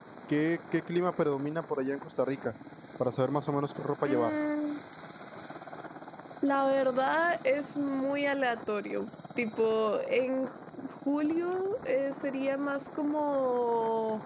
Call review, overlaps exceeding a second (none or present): none